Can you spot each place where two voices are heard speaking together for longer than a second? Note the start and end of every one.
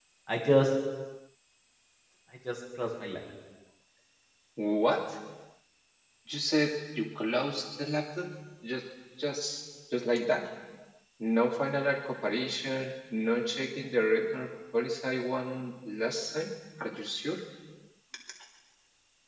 none

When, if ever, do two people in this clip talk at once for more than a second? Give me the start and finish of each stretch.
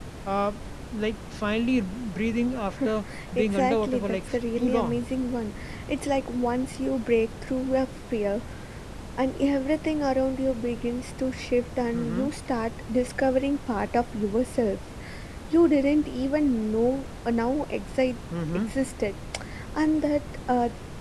3.3-5.0

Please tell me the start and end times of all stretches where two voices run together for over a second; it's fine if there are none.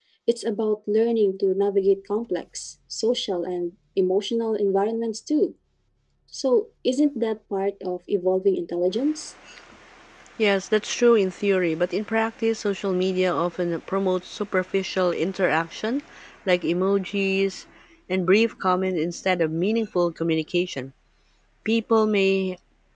none

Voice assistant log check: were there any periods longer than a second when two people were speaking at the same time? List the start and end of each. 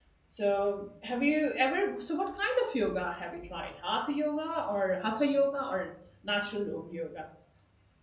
none

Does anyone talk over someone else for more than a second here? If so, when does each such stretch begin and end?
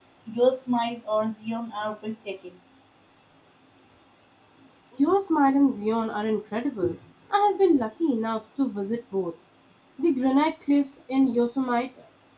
none

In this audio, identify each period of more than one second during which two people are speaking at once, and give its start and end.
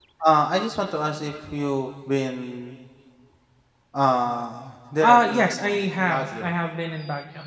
5.0-6.5

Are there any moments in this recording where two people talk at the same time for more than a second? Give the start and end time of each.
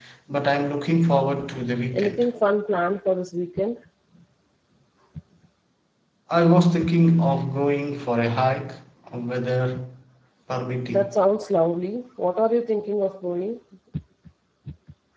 none

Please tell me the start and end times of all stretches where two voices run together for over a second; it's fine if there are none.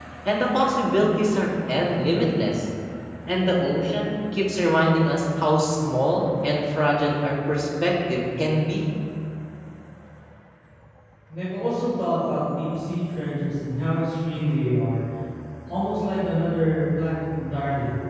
none

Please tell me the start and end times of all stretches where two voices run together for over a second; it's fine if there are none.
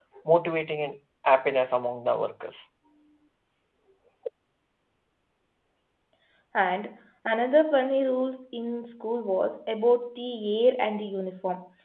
none

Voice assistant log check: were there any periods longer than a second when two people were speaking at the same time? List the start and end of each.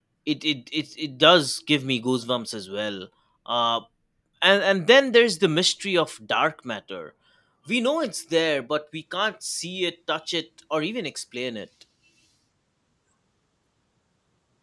none

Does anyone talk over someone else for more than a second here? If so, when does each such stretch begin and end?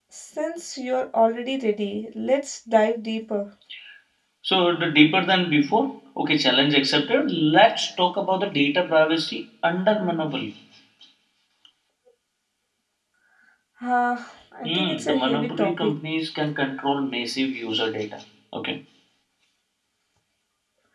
14.6-15.9

